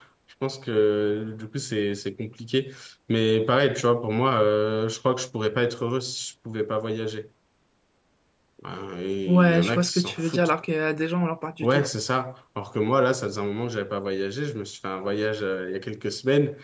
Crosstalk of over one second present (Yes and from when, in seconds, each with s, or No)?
Yes, from 9.3 s